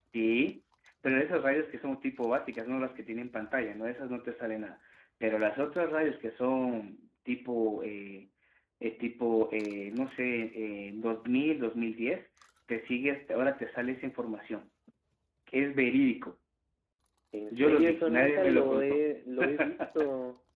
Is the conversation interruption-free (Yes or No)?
No